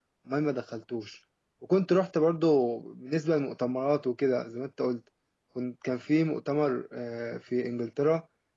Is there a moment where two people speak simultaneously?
No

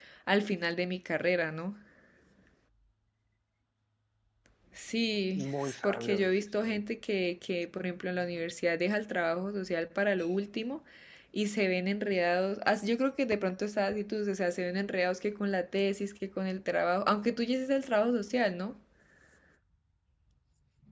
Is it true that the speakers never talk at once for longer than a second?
No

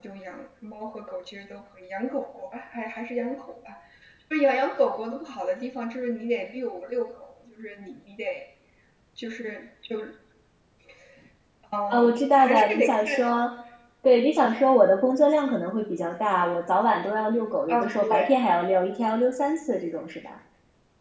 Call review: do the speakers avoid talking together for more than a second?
No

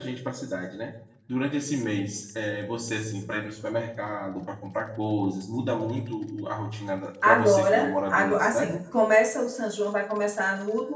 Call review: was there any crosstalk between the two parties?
Yes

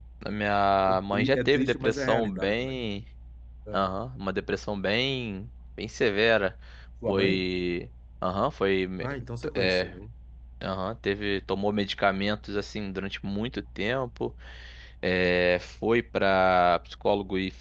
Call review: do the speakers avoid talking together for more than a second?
No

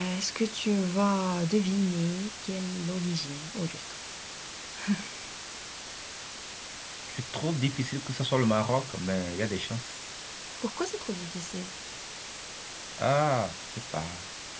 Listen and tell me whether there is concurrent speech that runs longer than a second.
No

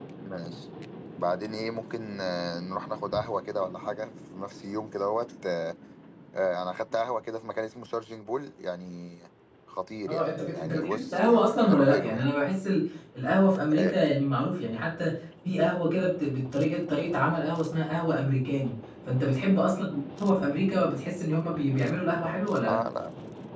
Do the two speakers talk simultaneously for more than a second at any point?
Yes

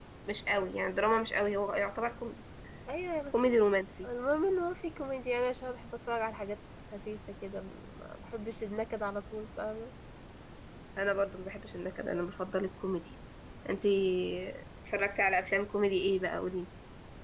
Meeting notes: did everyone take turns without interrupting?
Yes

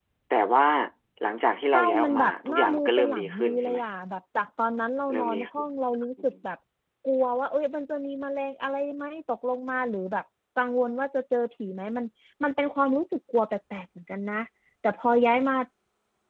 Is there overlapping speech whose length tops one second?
Yes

